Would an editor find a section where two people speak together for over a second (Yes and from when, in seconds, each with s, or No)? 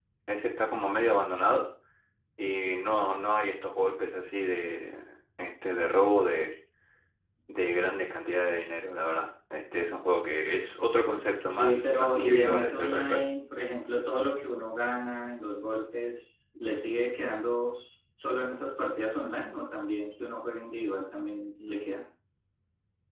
Yes, from 11.5 s